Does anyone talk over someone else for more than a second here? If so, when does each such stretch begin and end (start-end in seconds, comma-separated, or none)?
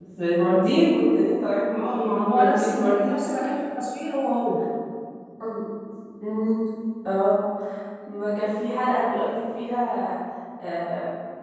1.7-3.0